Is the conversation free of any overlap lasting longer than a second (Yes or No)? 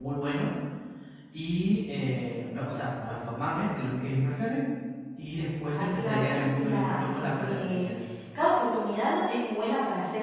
No